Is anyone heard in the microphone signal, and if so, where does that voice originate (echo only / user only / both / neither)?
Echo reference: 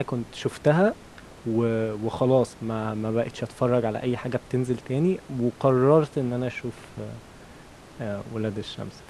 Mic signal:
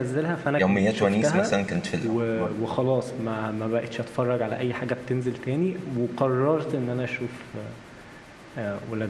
both